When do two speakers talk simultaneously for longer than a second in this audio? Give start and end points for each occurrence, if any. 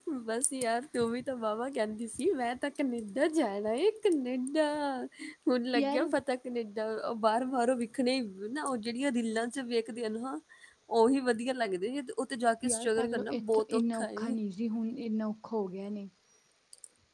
12.7-14.3

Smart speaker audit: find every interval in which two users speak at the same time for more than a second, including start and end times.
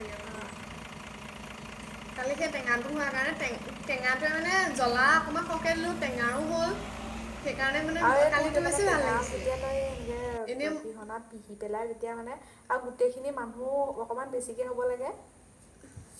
8.1-9.3

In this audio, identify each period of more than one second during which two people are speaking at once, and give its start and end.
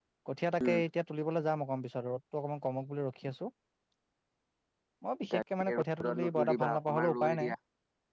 5.3-7.5

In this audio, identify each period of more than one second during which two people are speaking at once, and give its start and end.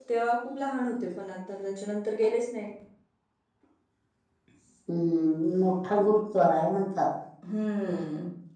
none

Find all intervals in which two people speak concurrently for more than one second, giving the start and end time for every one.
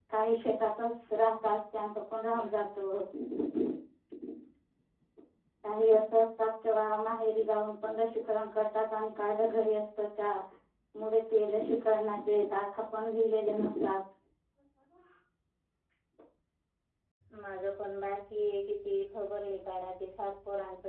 none

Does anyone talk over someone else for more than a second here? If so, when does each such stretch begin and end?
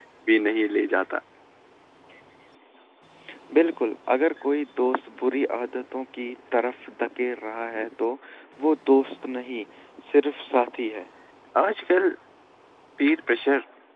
none

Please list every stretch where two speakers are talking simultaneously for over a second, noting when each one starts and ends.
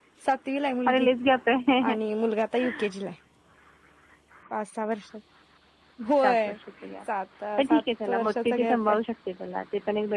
7.6-9.0

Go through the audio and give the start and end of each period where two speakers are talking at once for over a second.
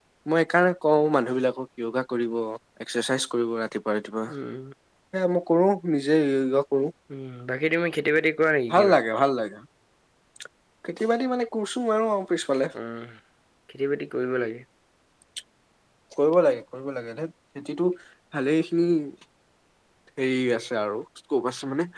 none

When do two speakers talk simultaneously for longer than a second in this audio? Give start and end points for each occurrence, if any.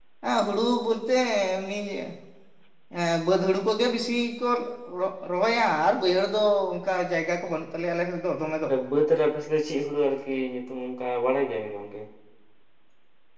none

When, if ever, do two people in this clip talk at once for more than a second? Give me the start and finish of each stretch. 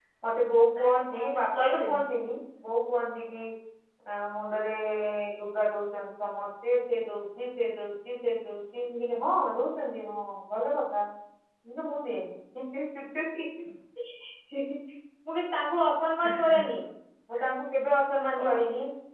0.8-2.0

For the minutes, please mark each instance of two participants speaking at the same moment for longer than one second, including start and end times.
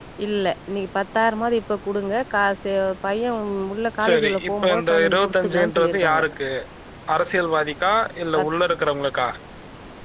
4.0-6.2

